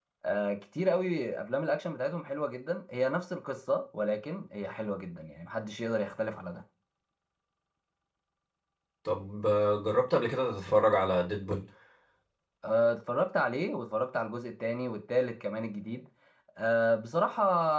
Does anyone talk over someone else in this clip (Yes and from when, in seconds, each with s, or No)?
No